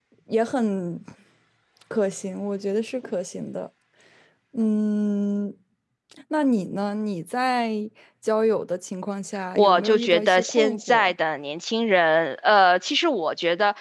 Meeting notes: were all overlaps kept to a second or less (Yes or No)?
No